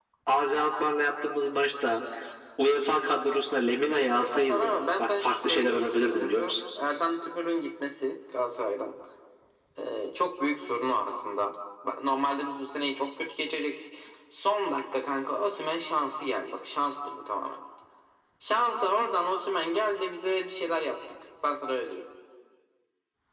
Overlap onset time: 4.0 s

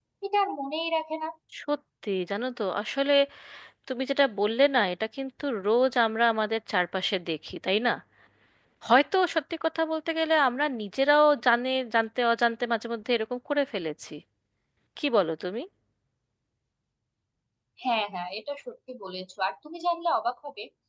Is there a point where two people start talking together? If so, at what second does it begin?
none

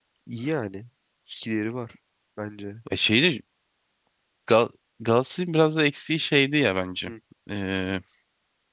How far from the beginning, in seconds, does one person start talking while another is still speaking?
none

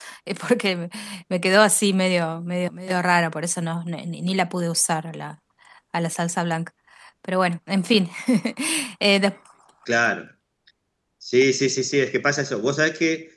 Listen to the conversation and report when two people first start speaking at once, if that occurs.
none

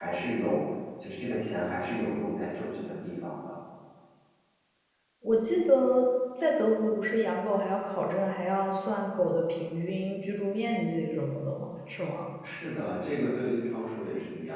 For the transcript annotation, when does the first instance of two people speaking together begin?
none

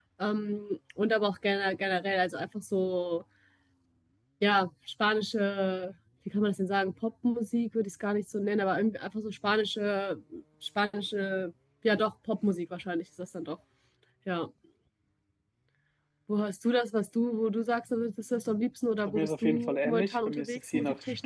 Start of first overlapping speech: 19.1 s

